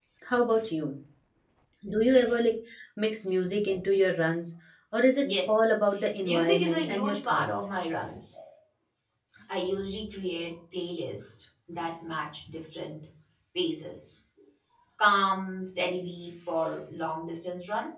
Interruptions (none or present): present